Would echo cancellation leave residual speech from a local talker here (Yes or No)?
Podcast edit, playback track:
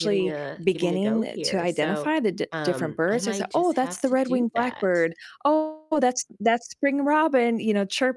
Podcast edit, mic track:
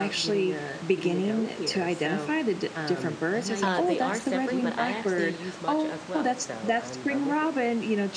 Yes